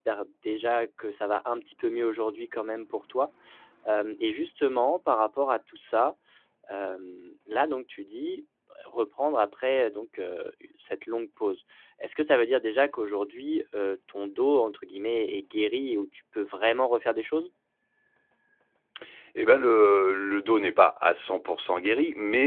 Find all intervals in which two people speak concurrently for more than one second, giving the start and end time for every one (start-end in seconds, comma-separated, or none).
none